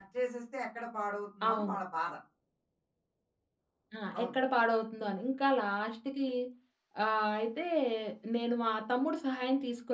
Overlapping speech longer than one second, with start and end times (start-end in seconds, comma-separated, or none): none